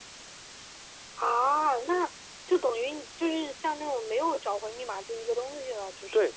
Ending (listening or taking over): taking over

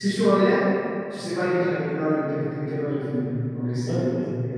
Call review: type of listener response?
listening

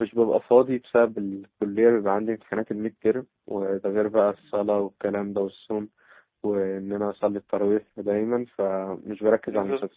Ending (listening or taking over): listening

